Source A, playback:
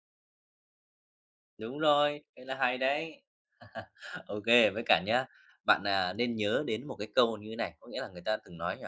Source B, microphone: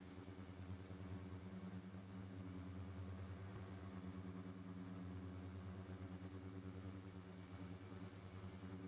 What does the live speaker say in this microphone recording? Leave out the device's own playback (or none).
none